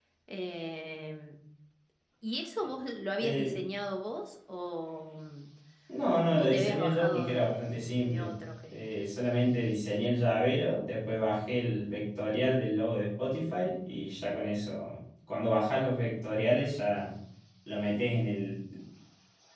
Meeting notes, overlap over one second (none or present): present